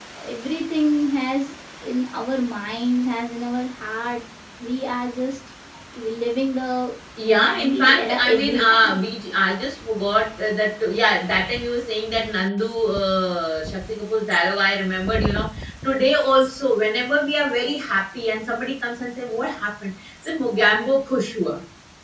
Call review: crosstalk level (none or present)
present